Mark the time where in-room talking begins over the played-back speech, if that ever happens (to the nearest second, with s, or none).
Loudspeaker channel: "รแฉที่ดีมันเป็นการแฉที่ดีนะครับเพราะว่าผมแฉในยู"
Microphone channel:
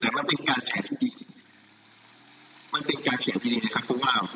none